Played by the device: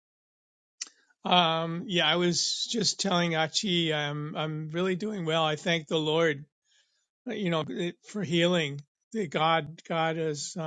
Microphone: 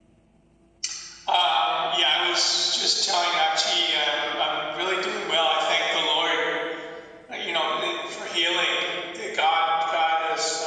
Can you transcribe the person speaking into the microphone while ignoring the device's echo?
none

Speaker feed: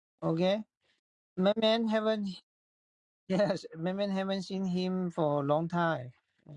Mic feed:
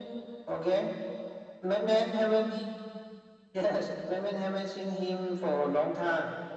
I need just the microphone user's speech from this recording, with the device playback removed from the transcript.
none

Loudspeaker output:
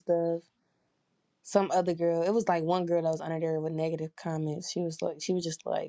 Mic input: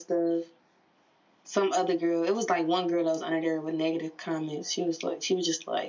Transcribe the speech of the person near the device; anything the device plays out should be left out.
none

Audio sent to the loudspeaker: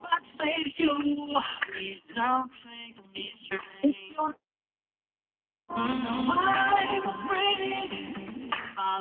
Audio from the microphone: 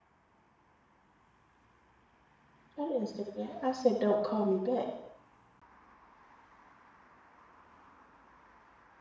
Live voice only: I didn't say that. I said, don't call me back.

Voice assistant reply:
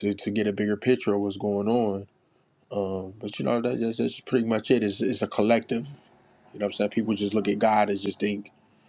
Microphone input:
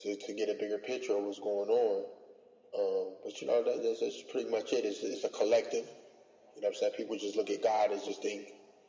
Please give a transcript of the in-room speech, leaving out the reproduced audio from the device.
none

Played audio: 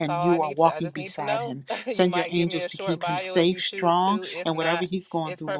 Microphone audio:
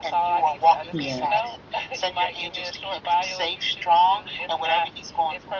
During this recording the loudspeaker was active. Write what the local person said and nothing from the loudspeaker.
Yeah.

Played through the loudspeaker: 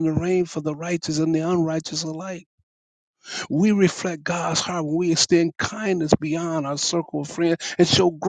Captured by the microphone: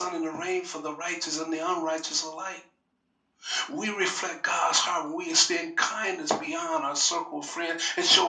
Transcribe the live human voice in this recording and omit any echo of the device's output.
none

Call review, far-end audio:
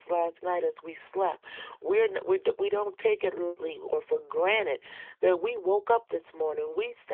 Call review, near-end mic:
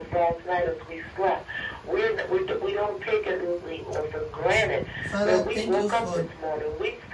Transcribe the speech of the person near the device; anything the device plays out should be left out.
Father, thank you for

